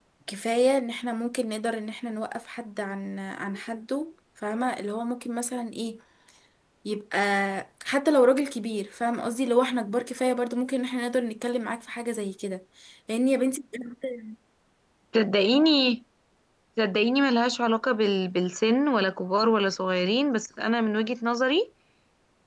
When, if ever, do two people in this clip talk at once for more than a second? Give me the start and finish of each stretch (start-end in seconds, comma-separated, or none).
none